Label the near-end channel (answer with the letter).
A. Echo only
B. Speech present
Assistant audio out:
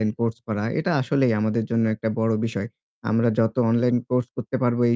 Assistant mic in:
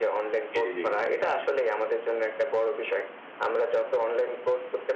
B